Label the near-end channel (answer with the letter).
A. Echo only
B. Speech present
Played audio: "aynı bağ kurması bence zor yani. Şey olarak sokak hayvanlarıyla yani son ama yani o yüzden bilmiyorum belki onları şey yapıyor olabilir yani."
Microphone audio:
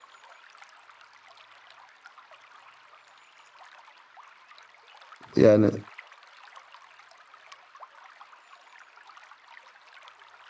B